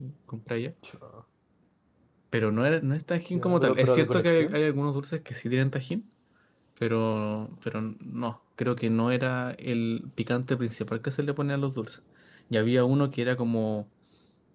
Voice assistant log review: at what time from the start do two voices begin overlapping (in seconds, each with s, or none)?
3.3 s